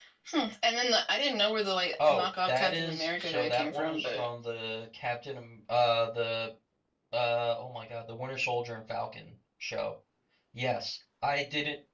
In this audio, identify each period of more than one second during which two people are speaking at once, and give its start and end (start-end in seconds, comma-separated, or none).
2.1-4.3